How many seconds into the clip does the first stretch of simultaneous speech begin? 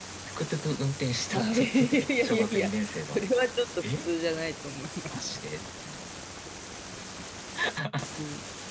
1.3 s

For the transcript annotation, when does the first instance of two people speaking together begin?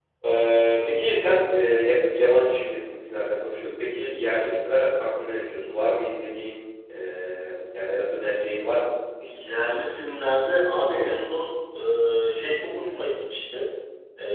none

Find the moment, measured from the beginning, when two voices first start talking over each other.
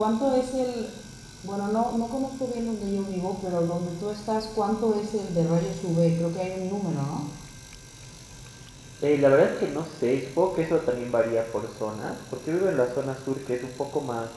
none

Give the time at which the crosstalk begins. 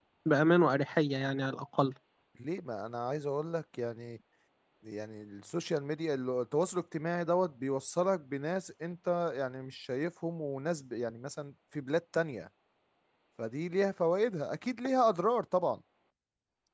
none

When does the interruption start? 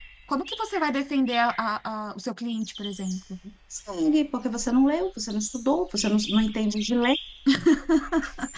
none

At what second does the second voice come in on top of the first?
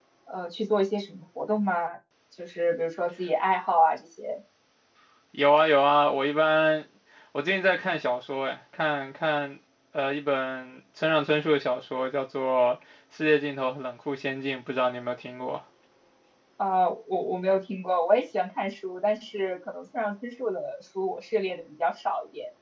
none

